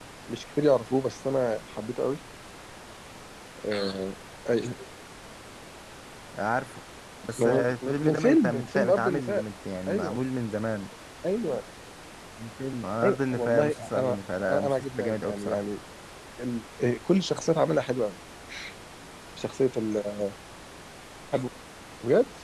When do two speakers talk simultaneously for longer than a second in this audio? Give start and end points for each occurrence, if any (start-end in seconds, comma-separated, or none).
7.4-9.4, 13.0-15.6